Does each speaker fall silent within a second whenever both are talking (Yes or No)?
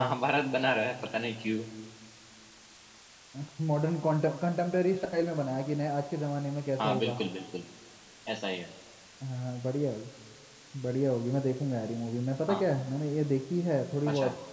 Yes